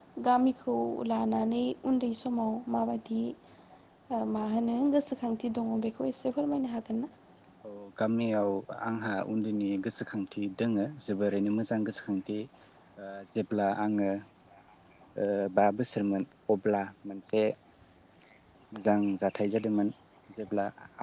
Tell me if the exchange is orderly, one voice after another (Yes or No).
Yes